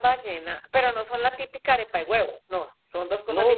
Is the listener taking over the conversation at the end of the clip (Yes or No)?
Yes